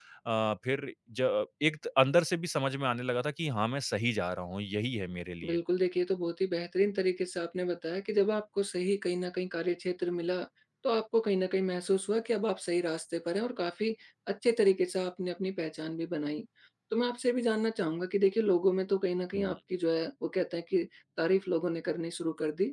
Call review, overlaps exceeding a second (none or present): none